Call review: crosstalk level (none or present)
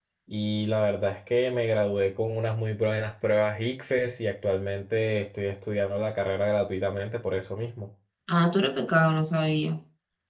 none